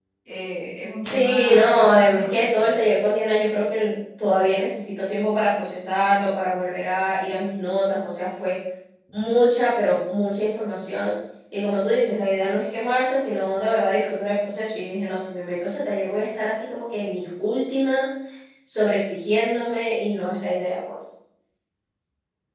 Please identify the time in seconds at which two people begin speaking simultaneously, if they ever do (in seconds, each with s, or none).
1.0 s